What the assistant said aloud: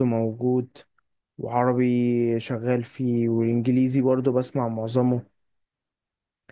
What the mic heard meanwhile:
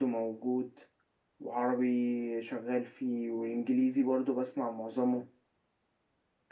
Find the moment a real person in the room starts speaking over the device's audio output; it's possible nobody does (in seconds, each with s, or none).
none